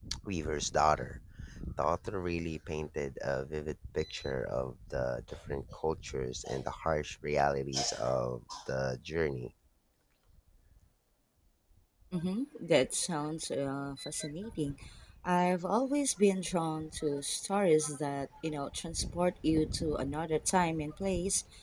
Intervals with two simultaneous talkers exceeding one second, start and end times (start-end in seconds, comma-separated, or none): none